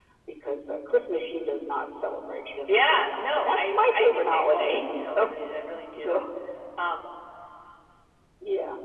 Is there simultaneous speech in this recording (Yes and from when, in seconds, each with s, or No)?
Yes, from 2.7 s